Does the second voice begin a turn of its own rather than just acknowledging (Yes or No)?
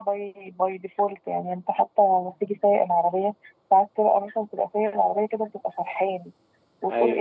No